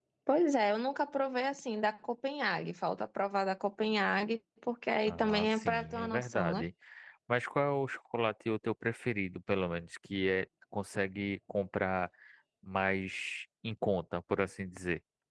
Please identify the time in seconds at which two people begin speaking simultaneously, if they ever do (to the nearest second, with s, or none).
5 s